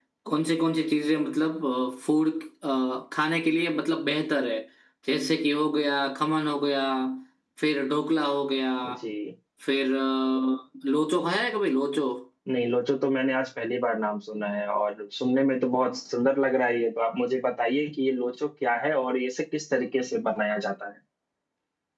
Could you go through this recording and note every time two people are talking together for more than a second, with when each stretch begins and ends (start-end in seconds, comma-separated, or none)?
none